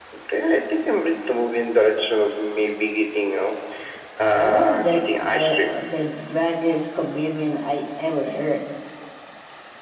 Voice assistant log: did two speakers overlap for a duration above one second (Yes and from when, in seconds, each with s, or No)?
Yes, from 4.3 s